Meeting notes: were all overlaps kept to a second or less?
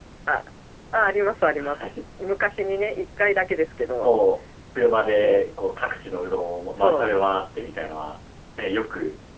Yes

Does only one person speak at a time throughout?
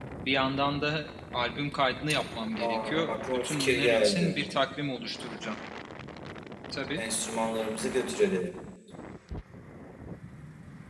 No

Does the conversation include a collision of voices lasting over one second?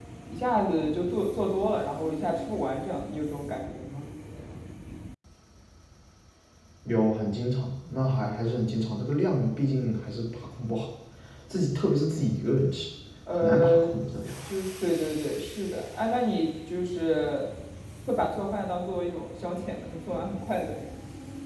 No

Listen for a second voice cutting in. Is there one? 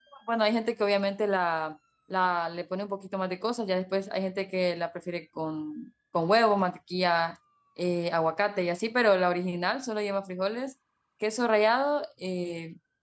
No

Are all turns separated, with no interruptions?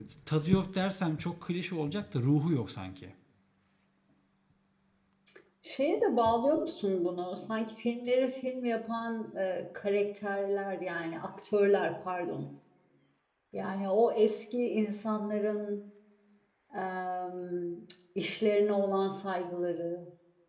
Yes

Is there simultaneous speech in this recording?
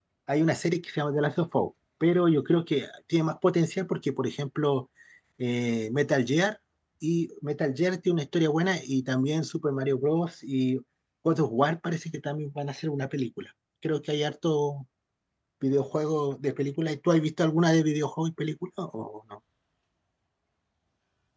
No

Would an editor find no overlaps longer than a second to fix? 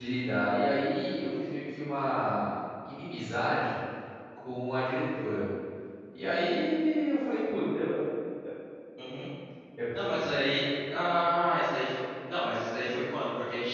Yes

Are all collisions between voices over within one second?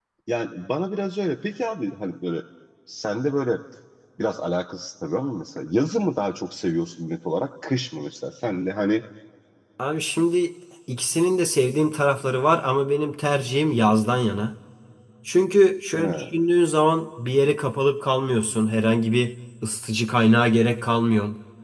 Yes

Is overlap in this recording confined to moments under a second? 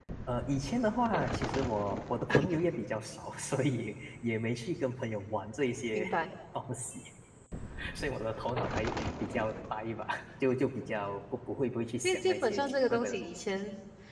No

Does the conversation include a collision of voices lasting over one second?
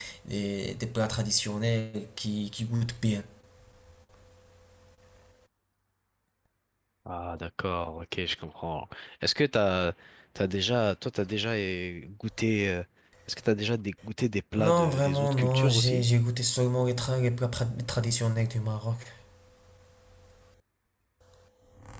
Yes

